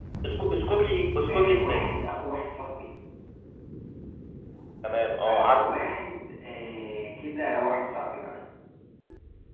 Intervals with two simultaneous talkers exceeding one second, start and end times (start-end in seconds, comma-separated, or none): none